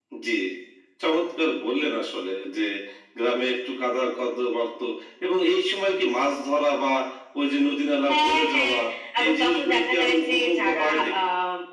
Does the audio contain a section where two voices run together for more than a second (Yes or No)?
Yes